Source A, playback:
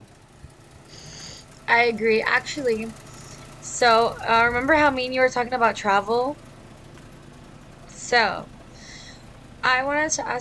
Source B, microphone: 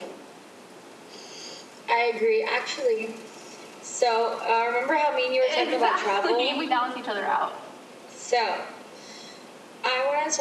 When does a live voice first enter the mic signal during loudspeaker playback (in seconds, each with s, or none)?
5.4 s